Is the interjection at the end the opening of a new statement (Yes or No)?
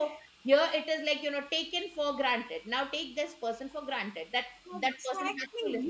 Yes